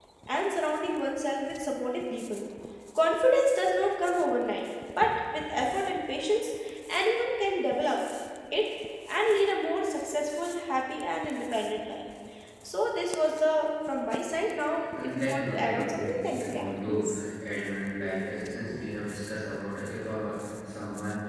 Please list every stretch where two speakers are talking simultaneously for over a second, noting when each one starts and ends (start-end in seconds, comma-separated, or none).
15.0-17.1